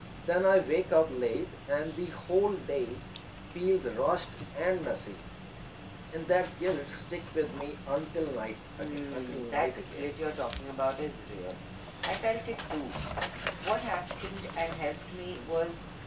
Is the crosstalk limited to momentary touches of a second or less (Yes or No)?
No